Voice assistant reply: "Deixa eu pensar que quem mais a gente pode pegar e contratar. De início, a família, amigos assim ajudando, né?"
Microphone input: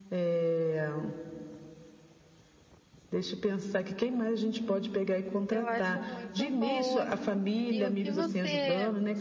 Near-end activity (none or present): present